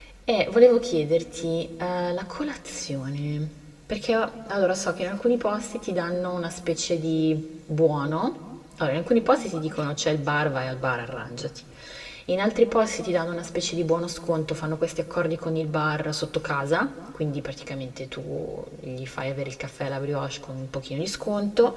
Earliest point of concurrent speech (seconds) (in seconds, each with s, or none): none